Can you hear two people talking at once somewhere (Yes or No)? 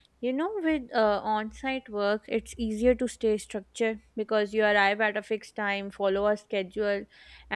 No